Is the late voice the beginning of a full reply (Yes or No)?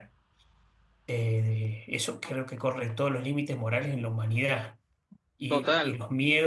No